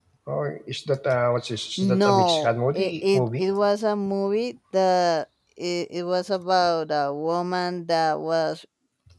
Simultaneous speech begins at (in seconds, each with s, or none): 1.8 s